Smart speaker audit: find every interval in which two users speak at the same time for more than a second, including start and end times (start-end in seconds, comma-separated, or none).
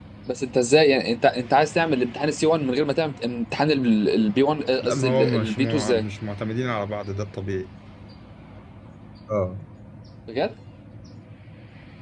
4.8-6.0